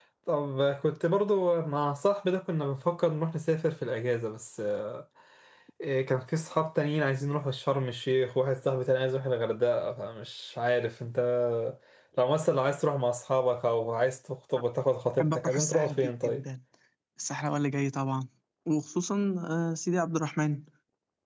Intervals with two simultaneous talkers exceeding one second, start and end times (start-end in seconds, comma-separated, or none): 15.2-16.4